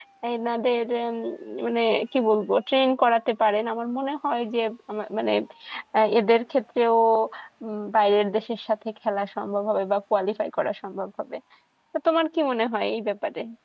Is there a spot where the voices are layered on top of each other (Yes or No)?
No